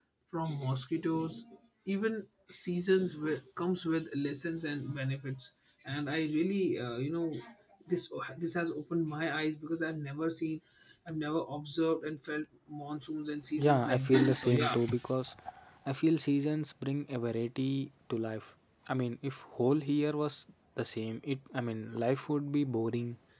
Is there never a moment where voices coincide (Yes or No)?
No